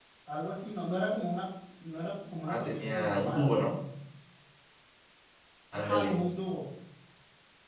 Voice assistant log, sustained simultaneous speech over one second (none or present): present